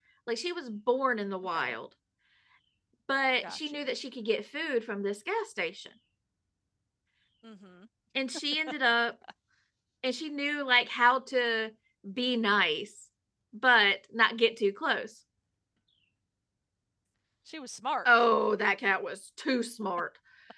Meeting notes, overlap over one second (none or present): none